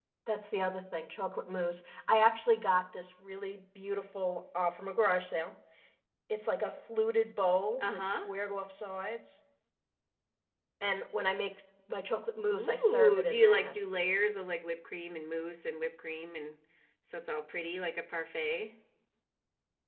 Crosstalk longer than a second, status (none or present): present